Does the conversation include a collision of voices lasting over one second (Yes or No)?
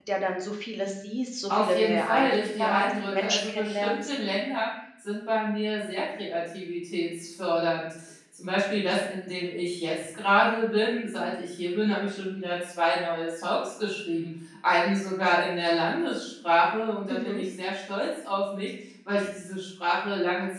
Yes